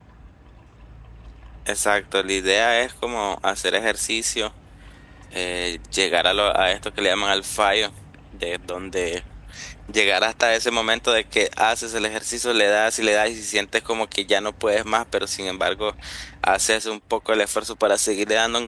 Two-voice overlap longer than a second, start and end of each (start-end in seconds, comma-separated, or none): none